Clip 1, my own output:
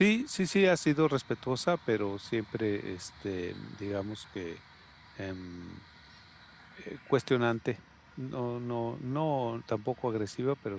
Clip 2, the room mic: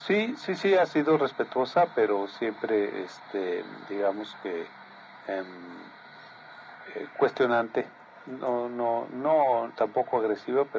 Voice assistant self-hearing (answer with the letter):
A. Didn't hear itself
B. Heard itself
B